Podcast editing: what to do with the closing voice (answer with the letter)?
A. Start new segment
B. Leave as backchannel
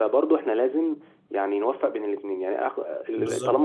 B